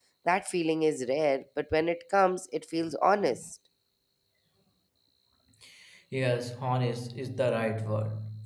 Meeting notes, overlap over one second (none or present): none